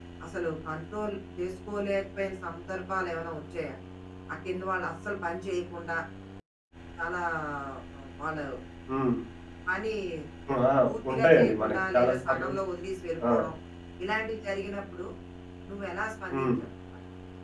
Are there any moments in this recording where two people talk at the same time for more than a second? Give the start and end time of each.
11.1-12.5

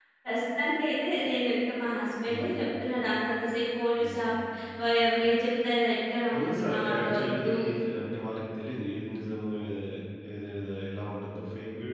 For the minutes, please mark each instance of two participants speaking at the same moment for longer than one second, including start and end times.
6.3-7.6

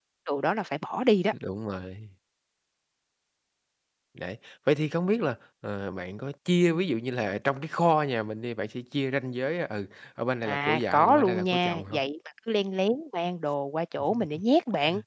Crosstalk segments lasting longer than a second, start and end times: 10.4-12.0

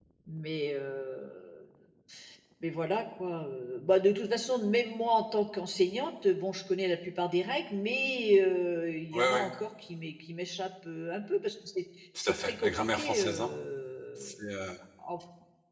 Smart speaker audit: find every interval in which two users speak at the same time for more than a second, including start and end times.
12.2-13.5

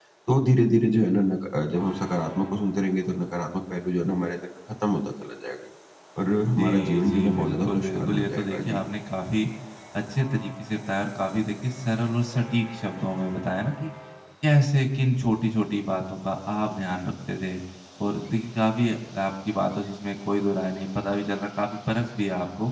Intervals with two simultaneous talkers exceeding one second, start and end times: 6.6-8.8

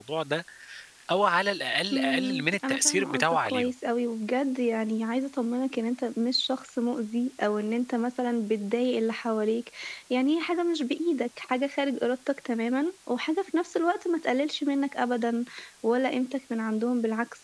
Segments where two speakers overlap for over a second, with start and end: 1.9-3.7

